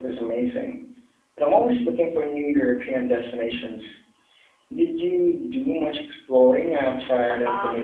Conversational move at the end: taking over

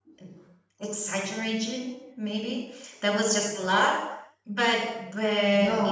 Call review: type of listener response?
listening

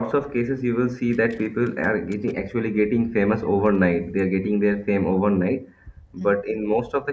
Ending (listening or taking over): listening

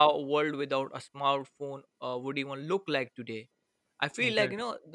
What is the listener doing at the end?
listening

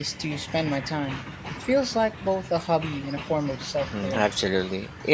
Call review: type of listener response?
taking over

